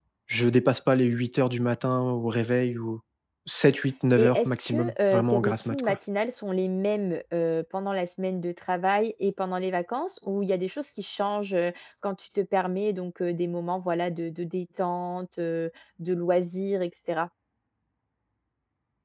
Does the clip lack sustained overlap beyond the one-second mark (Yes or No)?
No